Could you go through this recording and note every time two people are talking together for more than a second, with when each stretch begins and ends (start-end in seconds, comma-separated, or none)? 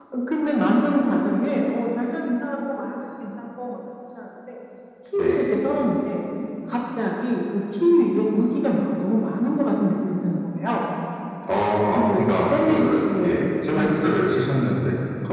12.0-14.1